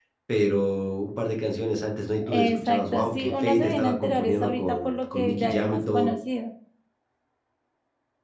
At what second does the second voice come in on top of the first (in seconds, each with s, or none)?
2.2 s